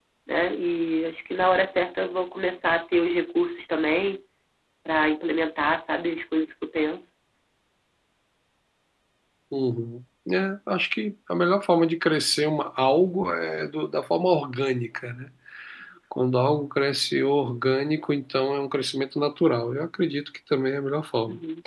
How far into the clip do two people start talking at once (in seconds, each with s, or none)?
none